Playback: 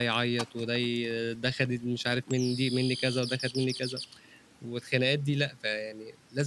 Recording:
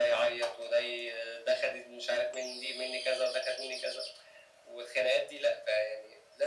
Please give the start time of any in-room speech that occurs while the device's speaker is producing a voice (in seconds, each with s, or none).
none